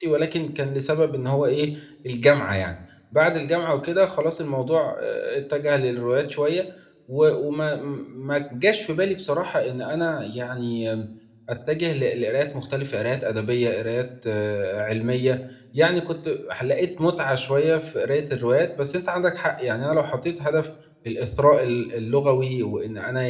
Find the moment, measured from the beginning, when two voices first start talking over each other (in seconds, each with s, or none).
none